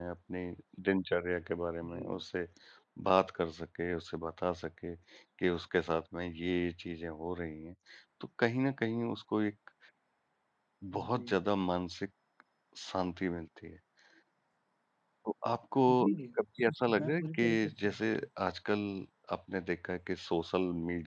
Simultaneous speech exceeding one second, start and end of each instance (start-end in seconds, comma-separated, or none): 17.0-18.3